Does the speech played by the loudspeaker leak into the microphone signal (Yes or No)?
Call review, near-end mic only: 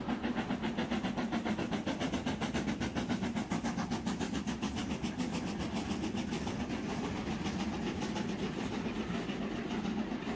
No